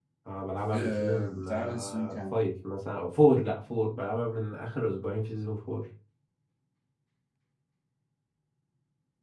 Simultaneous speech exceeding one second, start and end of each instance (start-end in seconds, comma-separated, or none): 0.7-2.4